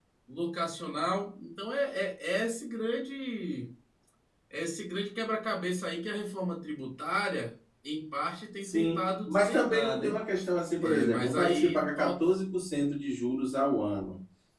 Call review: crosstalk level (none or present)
present